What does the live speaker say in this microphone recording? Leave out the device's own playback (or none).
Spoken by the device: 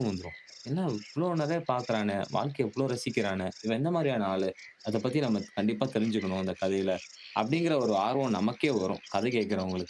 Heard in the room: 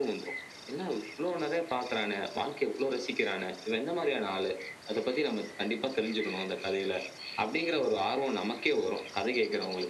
none